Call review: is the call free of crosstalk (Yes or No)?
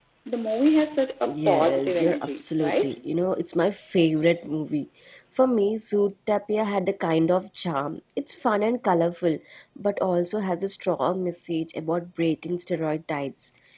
No